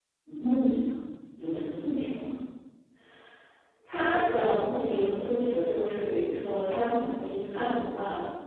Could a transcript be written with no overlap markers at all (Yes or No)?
Yes